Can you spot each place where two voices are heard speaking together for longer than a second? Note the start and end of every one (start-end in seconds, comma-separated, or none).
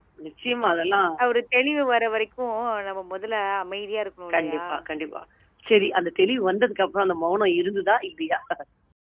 none